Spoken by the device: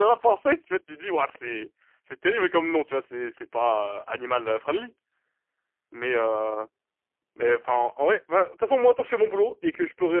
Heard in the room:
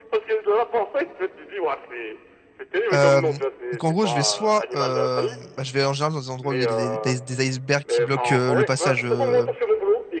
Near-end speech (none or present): present